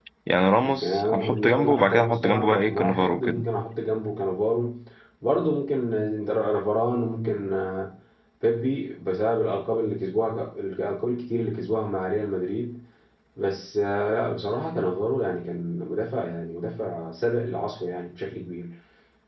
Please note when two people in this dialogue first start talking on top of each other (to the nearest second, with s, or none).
1 s